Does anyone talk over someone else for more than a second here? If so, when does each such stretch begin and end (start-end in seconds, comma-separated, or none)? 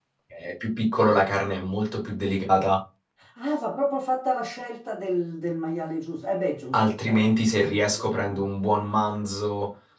6.7-8.4